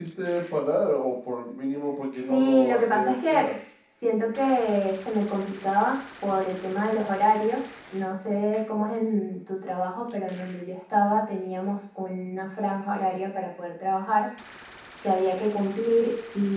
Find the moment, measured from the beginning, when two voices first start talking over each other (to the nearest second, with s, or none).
2 s